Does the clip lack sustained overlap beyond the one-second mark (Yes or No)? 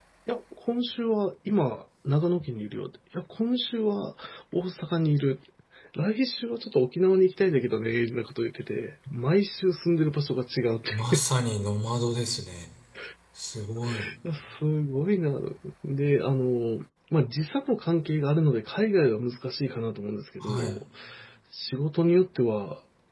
Yes